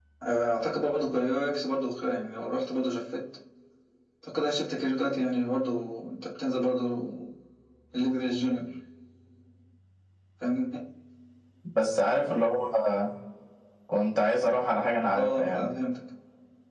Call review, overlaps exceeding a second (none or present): none